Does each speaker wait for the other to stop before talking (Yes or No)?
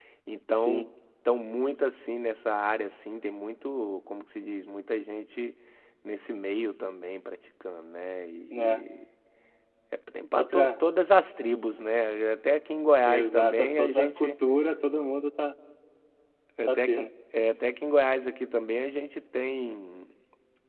No